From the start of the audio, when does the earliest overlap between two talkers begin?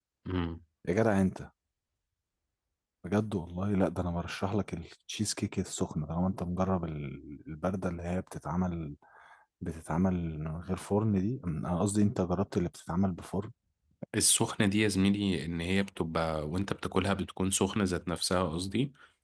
none

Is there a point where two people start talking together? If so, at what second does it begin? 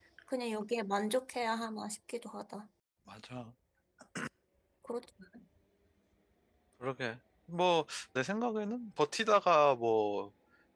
none

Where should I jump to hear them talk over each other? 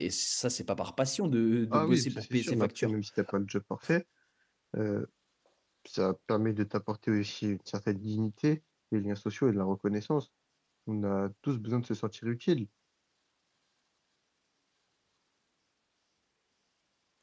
1.7 s

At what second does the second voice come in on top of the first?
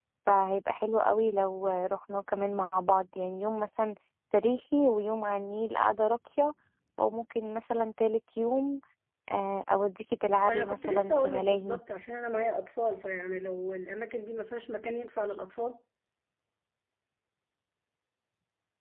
10.4 s

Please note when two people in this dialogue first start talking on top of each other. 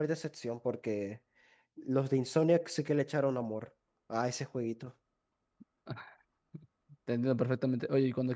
none

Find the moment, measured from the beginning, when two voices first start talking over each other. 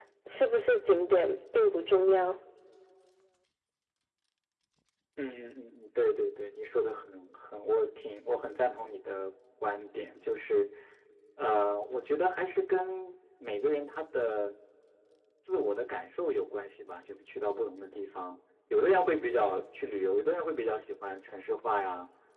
none

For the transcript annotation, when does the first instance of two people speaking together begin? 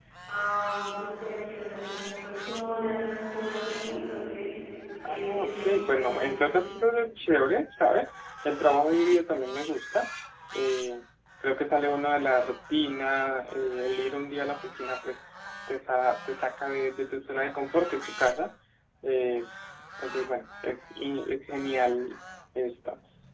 5.1 s

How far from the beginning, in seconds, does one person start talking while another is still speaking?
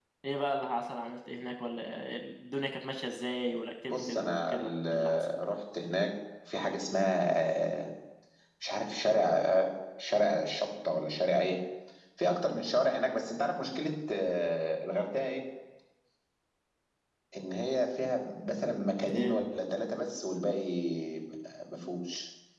3.9 s

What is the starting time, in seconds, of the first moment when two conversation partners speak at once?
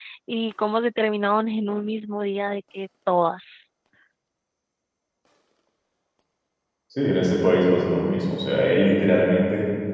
none

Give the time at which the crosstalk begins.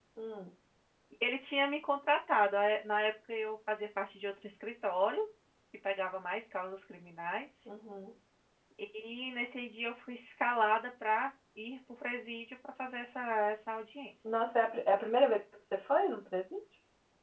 none

